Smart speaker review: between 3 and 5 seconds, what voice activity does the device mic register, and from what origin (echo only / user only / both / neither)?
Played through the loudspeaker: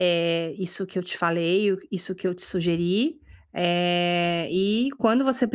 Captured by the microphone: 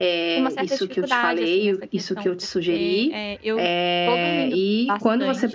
both